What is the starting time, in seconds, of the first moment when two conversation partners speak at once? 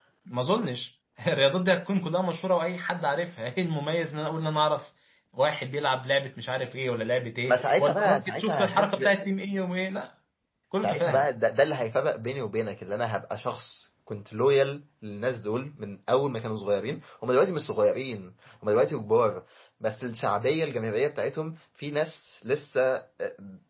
7.5 s

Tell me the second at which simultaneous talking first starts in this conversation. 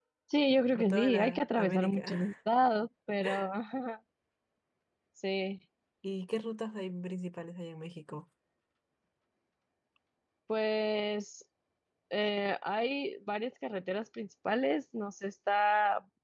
0.7 s

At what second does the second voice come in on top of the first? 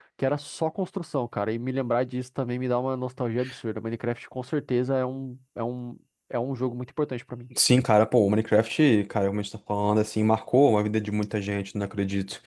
none

